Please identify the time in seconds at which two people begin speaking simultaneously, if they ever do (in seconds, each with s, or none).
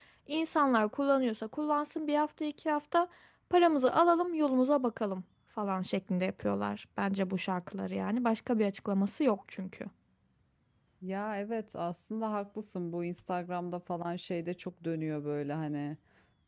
none